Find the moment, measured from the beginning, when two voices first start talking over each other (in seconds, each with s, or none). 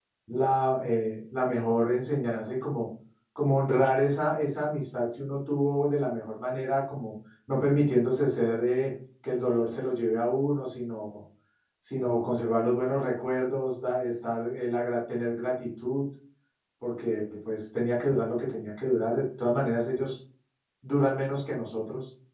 none